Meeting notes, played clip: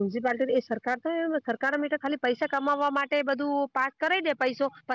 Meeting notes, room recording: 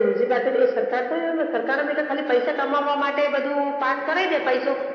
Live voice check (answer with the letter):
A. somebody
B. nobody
B